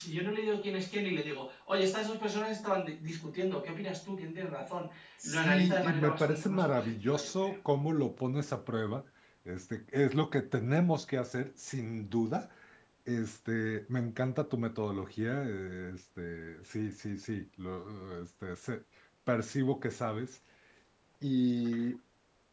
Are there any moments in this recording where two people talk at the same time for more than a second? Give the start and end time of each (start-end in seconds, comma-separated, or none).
5.2-7.5